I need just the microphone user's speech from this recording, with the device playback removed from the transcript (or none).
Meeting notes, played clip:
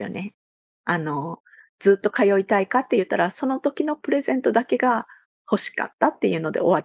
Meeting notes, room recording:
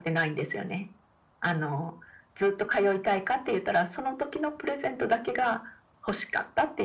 none